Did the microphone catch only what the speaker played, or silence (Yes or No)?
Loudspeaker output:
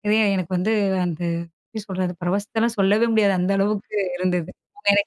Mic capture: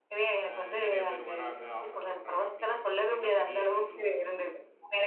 No